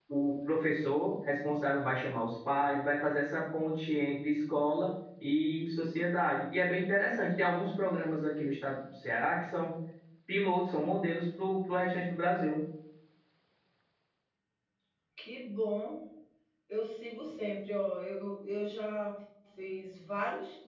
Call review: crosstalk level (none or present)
none